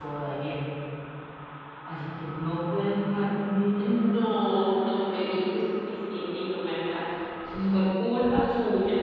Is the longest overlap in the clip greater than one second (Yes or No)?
No